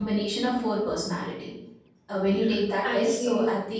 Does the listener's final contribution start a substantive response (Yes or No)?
No